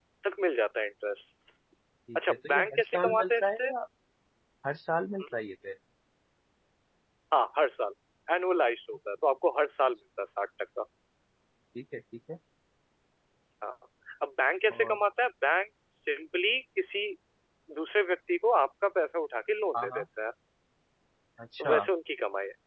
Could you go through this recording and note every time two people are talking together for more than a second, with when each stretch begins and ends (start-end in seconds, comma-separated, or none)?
2.2-3.7